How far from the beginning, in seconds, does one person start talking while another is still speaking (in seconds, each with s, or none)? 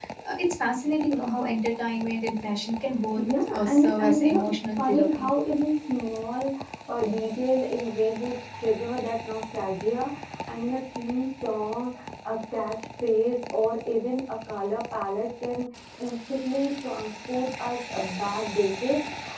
3.2 s